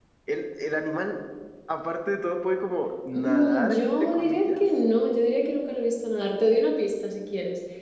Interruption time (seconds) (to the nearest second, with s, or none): 3 s